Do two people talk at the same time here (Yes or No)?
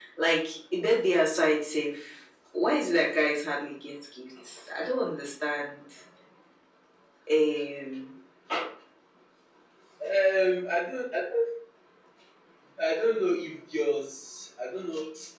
No